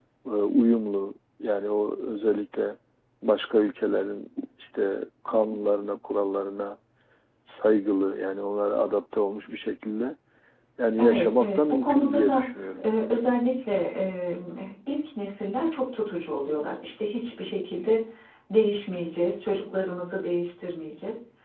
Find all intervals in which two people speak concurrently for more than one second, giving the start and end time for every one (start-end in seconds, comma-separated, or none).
11.0-12.4